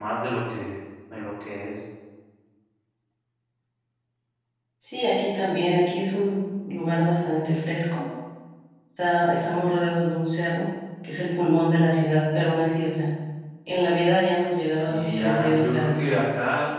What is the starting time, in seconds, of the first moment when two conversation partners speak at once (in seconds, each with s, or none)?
14.8 s